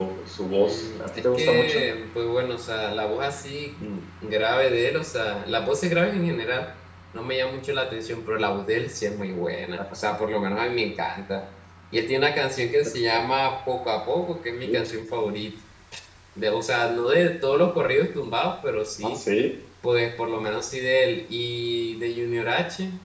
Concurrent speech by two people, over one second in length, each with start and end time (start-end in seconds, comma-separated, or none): 0.6-1.9